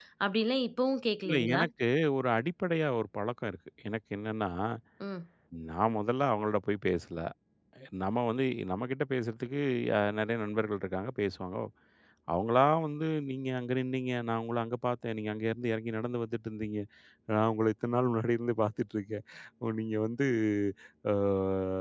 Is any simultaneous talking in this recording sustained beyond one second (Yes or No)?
No